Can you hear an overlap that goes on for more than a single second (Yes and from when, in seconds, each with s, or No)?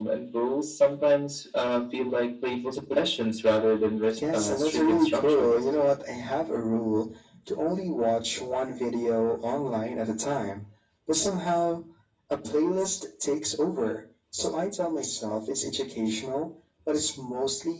Yes, from 4.1 s